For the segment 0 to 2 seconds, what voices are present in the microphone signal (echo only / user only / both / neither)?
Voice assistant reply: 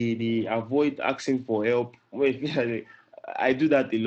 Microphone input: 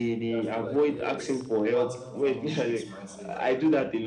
both